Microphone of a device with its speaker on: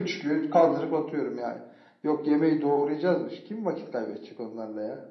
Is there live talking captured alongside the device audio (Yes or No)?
No